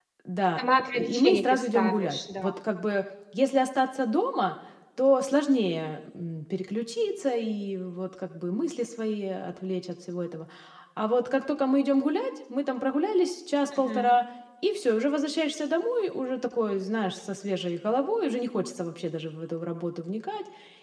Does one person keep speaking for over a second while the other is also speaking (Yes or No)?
Yes